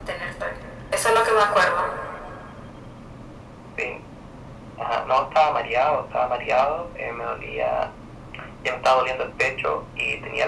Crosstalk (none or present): none